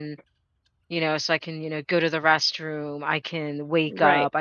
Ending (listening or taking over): listening